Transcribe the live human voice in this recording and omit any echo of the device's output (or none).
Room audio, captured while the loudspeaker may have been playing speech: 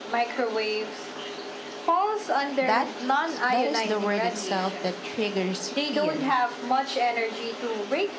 That that is the word itself that triggers fear.